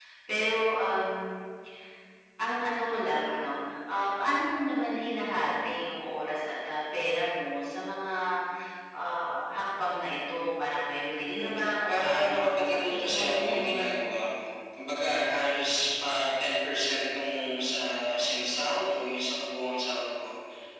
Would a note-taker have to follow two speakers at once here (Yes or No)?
Yes